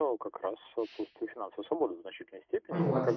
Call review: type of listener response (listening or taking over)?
listening